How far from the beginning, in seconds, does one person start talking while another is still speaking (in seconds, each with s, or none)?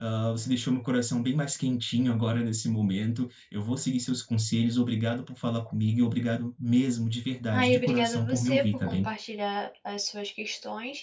7.5 s